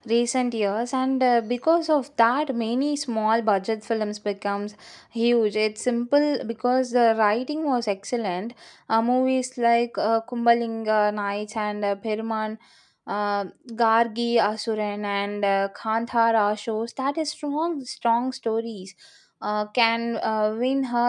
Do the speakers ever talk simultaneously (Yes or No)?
No